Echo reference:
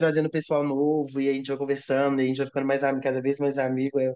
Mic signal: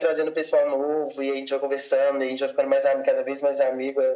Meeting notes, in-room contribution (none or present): none